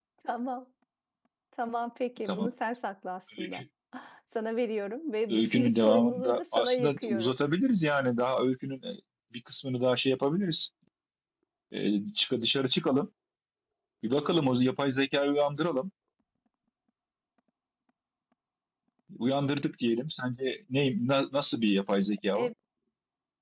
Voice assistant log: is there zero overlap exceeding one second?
No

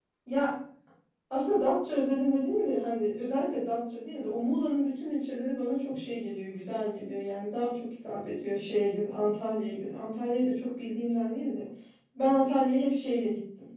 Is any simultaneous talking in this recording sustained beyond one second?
No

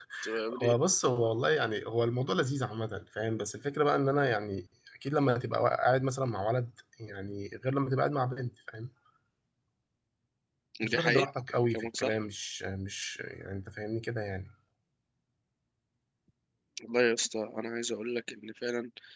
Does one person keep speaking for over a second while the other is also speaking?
No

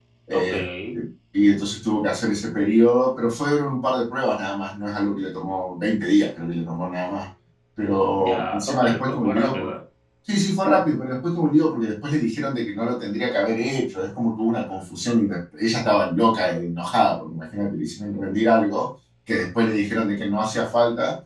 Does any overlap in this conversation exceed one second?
Yes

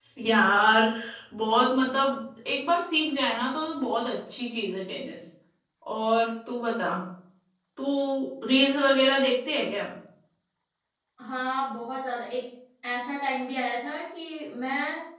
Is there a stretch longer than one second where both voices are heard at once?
No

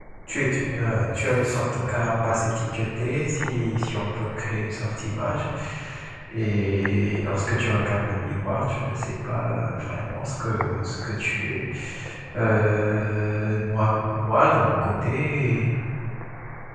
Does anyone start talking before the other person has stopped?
No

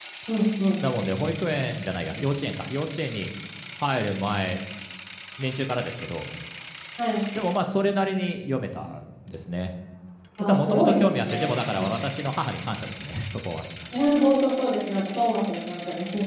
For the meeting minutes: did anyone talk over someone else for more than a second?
Yes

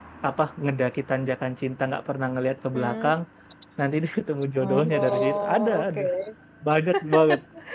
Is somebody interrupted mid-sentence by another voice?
Yes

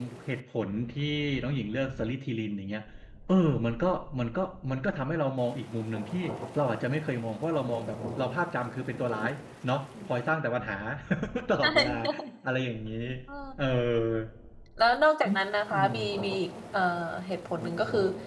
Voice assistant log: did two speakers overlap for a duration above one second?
No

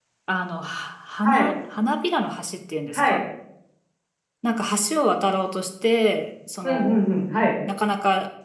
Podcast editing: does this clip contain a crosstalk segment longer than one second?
No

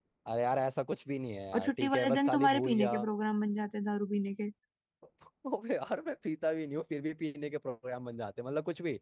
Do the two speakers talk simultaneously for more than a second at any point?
Yes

